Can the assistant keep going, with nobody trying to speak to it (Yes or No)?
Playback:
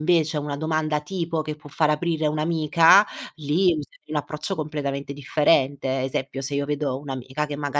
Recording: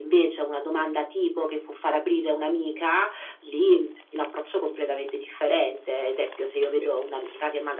No